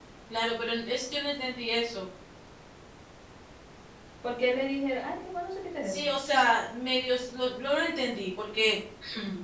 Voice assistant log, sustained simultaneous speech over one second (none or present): none